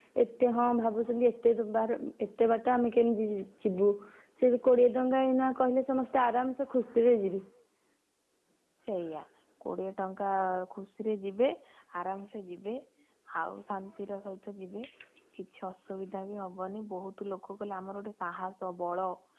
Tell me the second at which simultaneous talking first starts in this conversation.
none

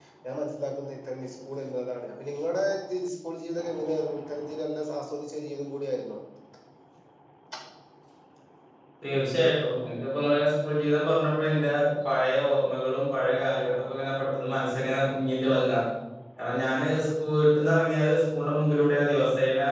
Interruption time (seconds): none

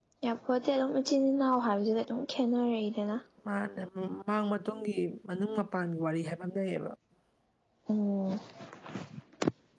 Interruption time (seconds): none

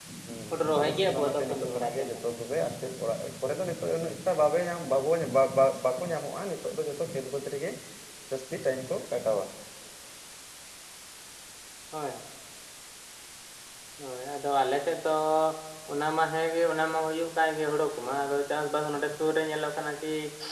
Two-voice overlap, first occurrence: 1 s

